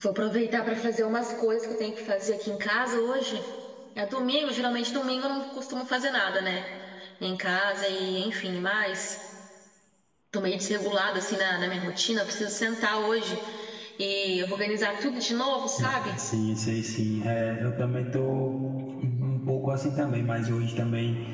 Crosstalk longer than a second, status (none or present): none